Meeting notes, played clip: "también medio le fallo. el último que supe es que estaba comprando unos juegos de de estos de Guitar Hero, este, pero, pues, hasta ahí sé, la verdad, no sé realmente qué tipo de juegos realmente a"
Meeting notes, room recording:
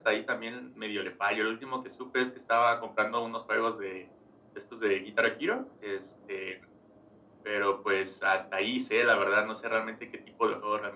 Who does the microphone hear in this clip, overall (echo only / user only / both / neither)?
echo only